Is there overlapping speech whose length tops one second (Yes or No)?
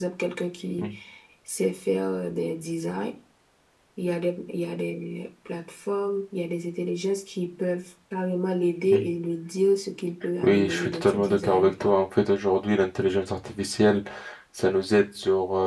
Yes